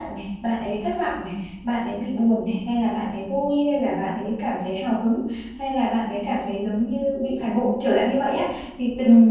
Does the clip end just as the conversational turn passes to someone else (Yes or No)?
No